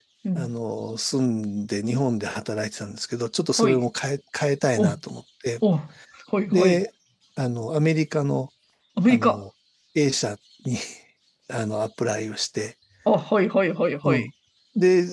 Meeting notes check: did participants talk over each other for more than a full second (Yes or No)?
No